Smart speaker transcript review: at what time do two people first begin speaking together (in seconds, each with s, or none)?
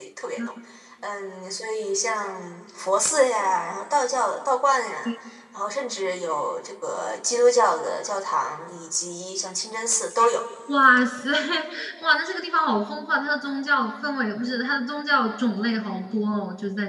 none